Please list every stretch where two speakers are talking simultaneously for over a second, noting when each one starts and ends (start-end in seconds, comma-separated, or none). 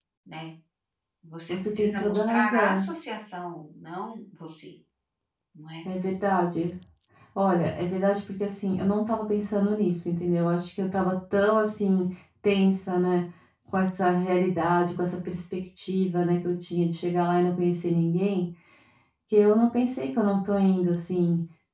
1.5-2.9